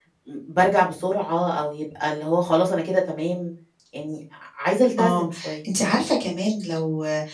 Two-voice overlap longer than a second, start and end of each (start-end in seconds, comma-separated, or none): none